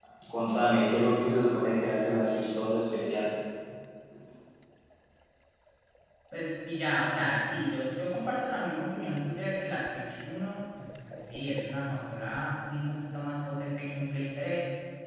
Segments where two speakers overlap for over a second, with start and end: none

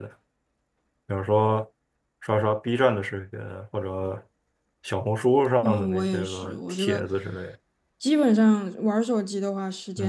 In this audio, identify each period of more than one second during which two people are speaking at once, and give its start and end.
5.6-7.0

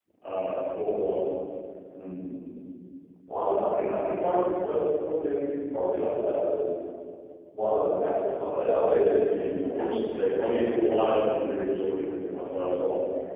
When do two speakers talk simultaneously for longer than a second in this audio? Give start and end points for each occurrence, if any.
9.2-11.3

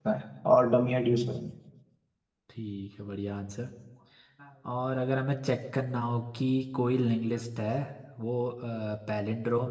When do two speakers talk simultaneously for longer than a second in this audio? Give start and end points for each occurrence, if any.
none

